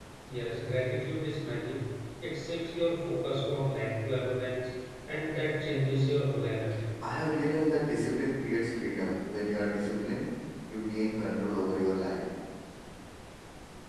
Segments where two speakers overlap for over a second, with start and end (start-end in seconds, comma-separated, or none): none